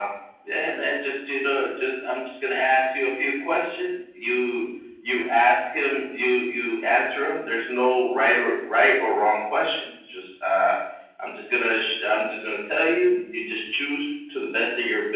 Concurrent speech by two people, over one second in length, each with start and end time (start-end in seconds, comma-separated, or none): none